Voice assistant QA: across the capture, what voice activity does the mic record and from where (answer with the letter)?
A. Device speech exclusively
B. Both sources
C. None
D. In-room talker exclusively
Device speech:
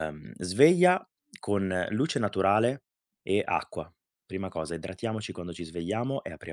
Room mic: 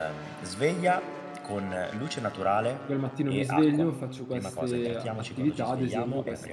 B